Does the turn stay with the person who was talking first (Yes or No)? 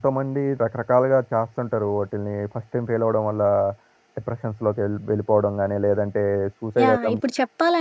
No